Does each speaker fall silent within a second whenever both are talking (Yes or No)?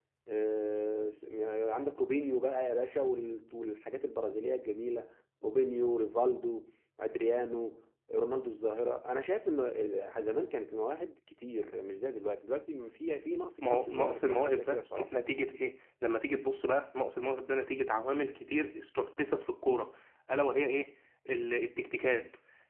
No